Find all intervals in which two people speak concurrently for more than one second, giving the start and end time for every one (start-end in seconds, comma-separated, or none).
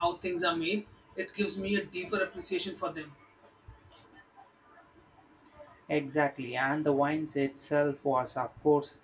none